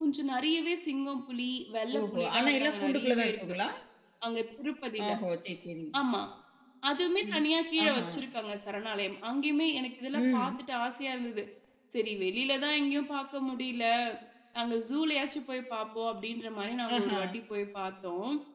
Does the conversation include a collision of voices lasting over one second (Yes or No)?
Yes